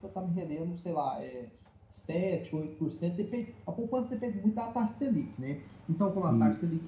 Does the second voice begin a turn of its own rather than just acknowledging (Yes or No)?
No